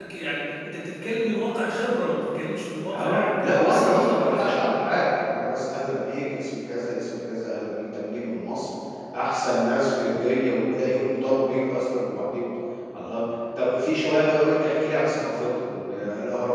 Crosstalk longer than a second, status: present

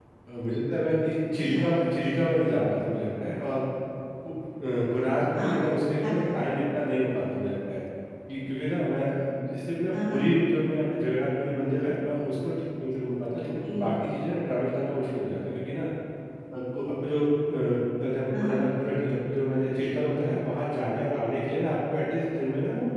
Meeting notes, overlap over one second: none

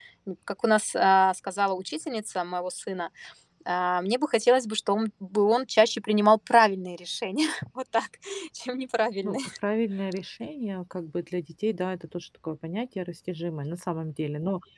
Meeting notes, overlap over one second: none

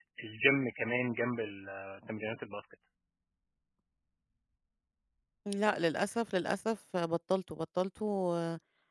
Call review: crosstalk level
none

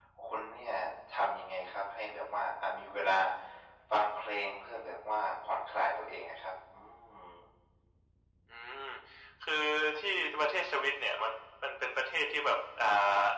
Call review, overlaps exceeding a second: none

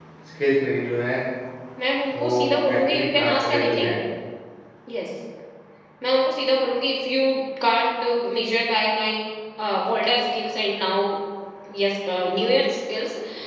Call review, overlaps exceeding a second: present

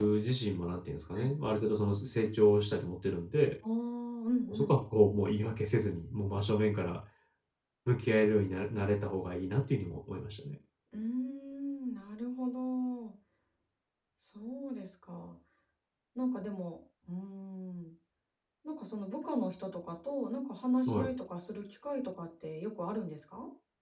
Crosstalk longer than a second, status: none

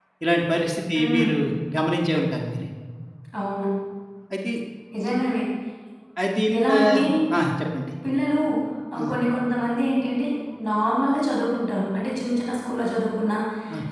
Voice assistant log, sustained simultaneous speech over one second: none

